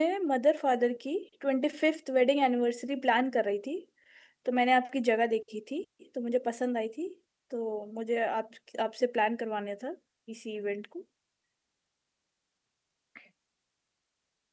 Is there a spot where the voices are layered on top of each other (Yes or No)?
No